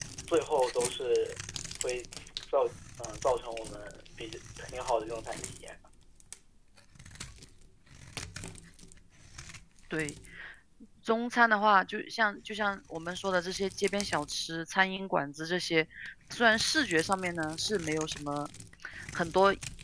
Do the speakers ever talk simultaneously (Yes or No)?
No